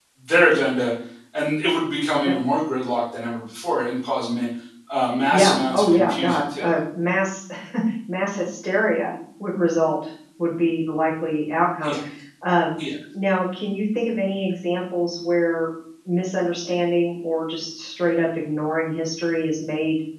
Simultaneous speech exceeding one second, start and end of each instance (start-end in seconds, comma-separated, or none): 5.3-6.6